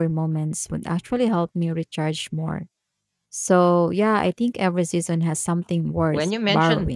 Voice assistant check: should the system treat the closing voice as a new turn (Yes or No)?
Yes